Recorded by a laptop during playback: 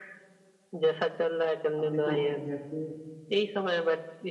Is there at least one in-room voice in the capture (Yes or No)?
Yes